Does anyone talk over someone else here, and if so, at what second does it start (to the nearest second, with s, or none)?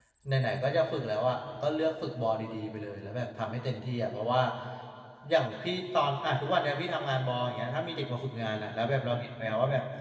none